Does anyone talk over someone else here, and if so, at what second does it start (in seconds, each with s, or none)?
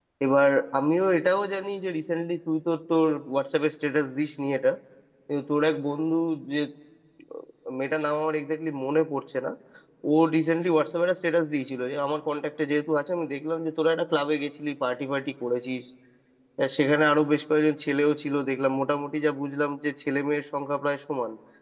none